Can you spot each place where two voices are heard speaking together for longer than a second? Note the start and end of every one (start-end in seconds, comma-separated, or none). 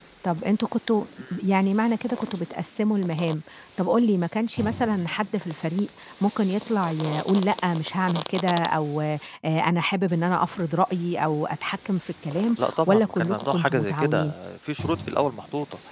12.6-14.3